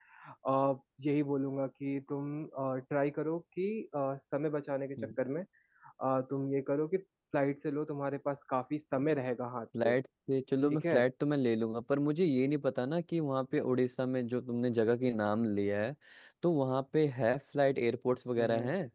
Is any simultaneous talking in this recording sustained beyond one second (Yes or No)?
No